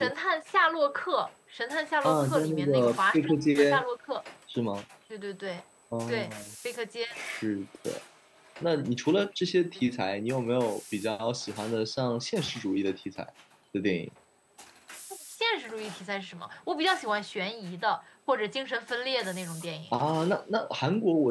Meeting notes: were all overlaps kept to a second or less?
No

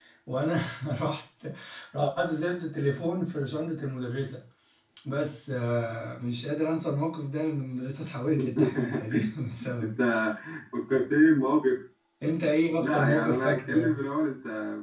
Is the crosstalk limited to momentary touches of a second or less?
No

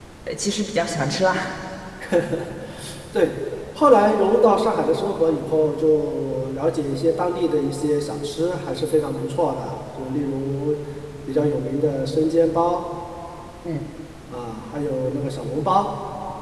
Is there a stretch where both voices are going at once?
No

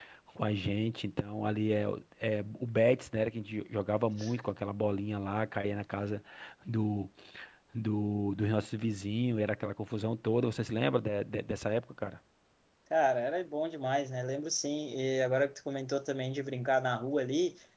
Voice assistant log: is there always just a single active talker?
Yes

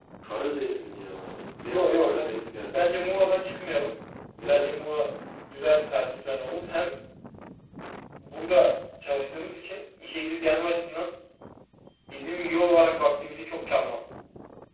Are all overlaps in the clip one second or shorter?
No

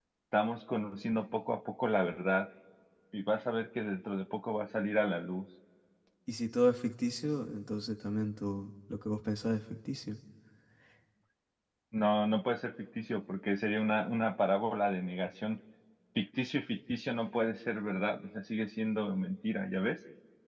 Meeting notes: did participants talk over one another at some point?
No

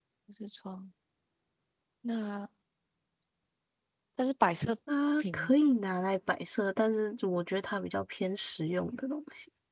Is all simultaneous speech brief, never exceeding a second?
Yes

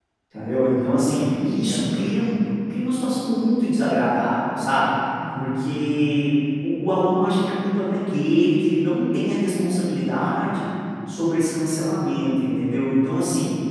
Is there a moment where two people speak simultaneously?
Yes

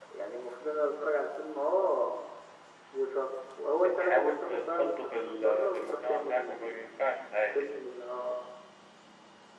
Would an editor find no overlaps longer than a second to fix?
No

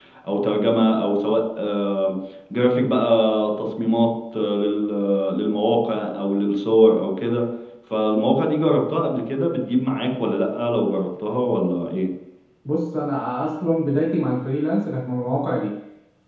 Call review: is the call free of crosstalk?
Yes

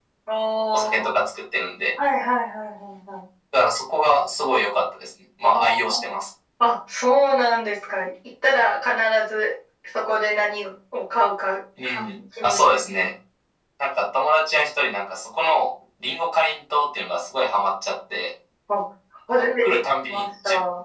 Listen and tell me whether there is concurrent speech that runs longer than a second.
Yes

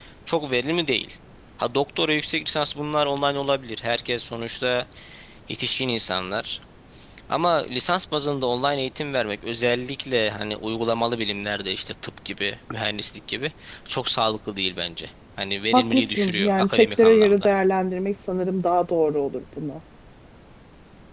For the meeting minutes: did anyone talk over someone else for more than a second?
Yes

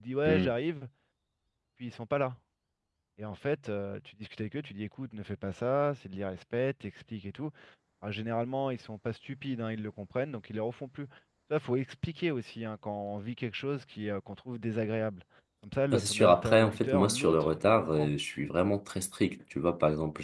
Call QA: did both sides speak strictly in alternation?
No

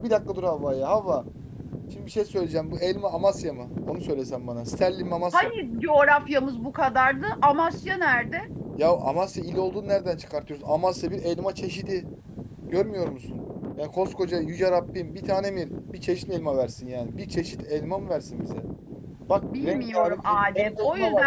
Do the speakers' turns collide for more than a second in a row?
Yes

